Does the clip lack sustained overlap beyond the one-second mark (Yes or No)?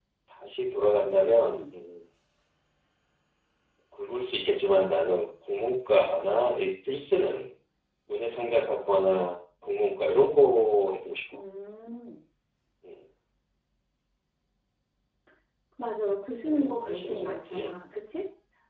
No